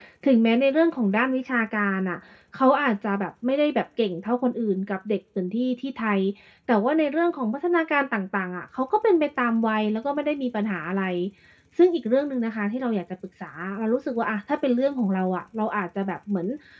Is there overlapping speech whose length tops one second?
No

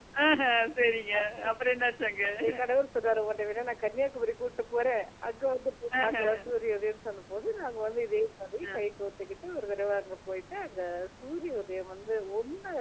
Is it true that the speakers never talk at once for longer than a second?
Yes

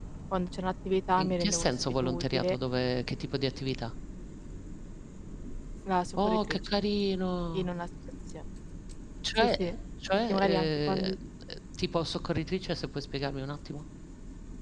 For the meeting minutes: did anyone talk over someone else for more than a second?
Yes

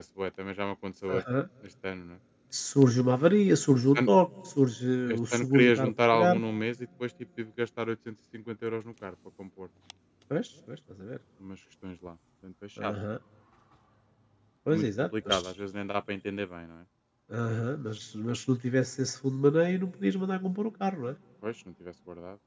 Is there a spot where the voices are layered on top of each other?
Yes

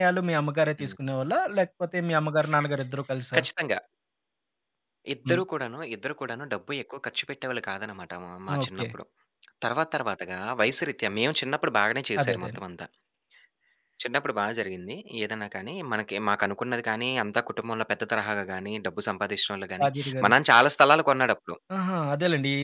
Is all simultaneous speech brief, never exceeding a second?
Yes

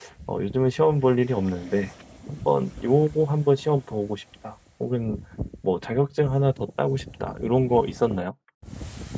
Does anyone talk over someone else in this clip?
No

